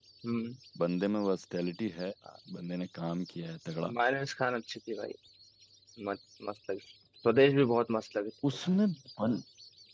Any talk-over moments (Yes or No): No